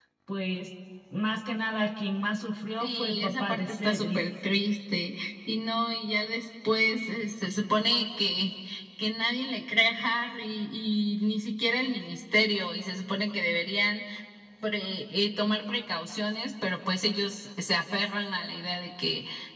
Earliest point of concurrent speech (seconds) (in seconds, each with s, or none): 2.8 s